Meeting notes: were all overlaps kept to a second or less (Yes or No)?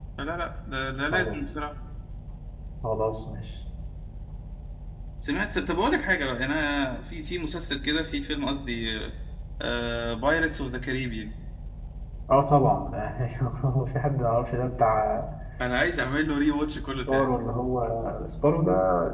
Yes